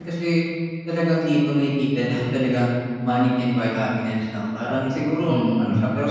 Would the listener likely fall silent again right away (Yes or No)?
Yes